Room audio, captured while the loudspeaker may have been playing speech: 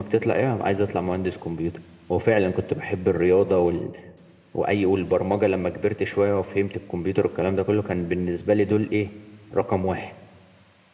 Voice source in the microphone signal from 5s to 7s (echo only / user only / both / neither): echo only